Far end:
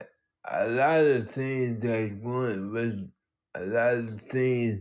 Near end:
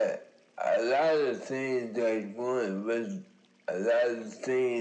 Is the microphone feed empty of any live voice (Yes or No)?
Yes